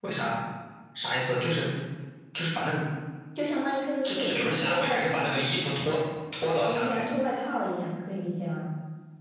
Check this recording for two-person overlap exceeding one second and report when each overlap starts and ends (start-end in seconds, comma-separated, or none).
4.0-5.3